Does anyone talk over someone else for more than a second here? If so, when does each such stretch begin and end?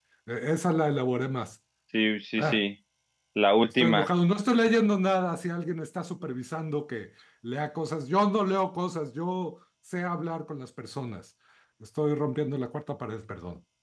none

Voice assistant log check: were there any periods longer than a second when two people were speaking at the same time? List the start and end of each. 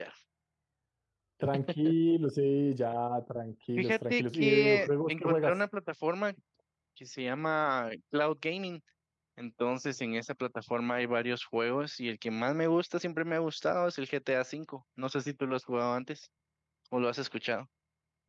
3.8-5.6

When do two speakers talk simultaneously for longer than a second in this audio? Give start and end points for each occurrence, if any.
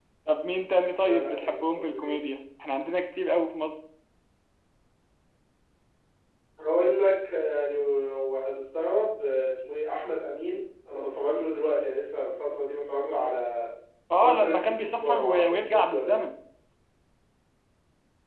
1.0-2.2, 14.1-16.2

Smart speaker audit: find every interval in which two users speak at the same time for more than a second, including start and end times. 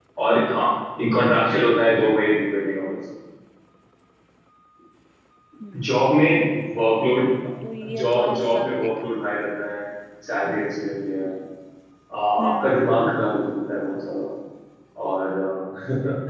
7.8-9.1

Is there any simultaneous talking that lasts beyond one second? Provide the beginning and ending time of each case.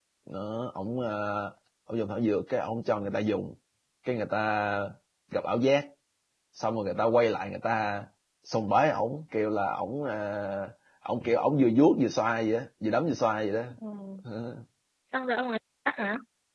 none

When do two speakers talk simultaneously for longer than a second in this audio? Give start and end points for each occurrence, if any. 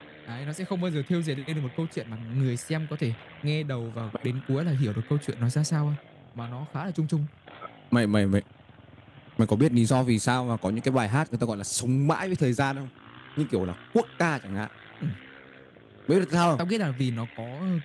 none

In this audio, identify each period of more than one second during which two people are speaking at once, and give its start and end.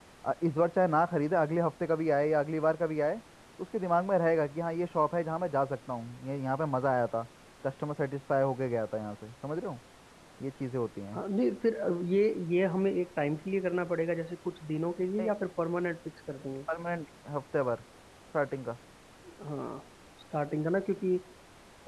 none

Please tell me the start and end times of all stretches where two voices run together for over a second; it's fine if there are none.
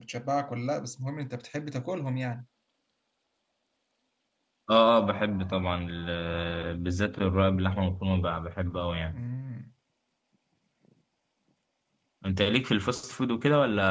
none

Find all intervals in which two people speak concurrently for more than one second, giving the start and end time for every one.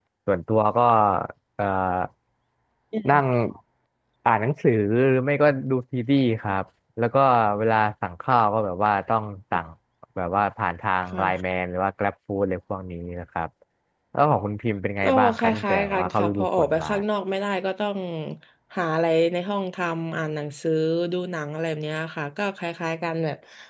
15.0-16.9

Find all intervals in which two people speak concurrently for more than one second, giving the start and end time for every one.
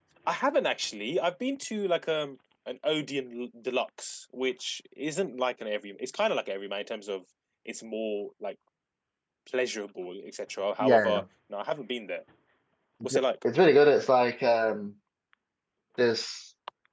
none

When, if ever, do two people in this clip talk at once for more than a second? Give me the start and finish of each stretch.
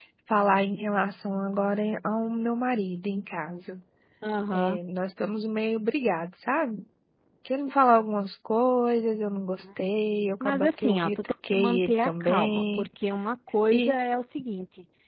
10.4-12.8

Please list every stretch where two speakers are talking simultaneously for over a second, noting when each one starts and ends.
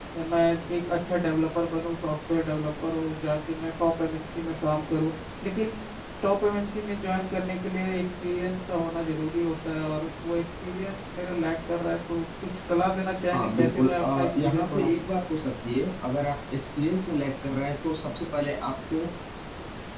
13.3-15.0

